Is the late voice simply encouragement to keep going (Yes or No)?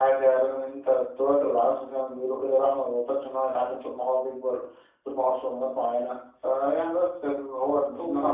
No